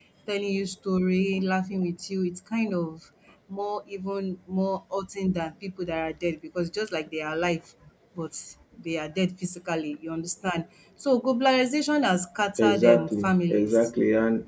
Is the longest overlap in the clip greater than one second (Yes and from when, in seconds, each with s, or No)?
Yes, from 12.6 s